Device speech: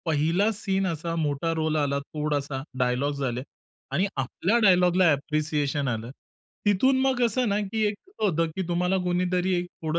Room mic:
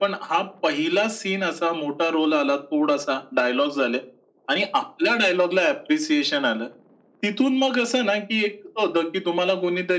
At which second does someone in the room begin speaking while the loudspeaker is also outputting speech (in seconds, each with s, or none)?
none